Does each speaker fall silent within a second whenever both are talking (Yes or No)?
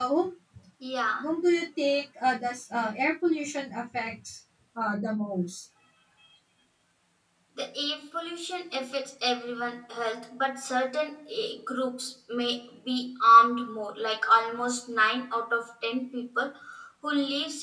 Yes